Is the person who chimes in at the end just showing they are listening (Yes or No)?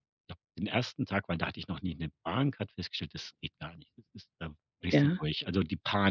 Yes